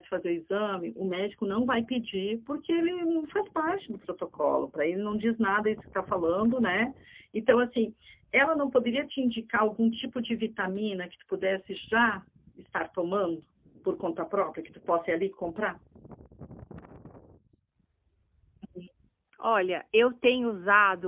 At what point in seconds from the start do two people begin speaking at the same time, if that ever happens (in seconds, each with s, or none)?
none